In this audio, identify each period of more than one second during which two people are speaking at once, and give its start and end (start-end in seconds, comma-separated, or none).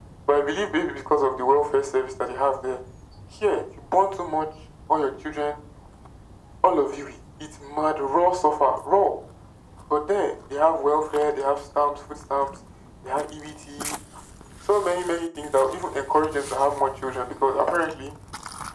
none